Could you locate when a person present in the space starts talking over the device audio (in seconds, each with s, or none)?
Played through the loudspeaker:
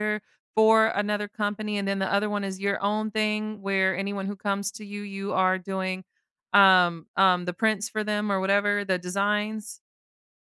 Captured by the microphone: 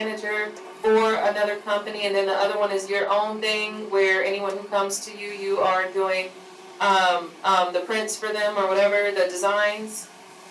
none